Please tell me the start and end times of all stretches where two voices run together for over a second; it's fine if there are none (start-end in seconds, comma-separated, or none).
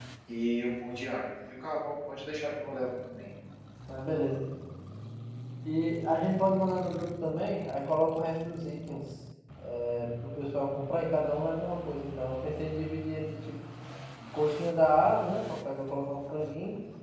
none